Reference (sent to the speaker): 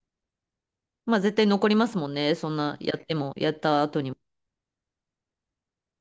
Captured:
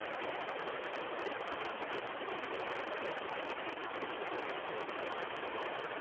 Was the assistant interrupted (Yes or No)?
No